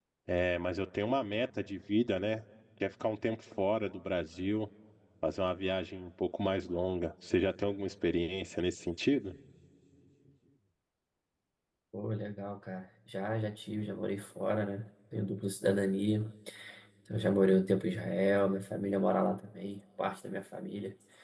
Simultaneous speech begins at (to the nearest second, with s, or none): none